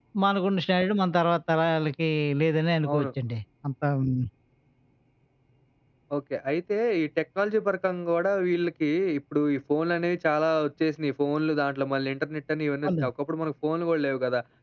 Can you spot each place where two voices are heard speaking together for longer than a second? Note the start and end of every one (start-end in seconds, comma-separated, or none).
none